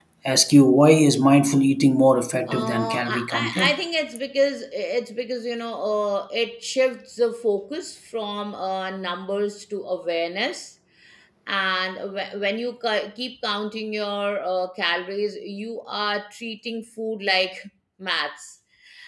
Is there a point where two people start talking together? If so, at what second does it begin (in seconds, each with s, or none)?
2.5 s